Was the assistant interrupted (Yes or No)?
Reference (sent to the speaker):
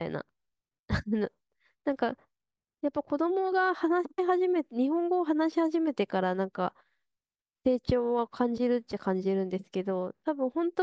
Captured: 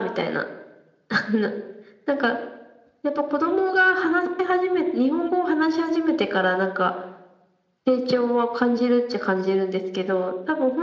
No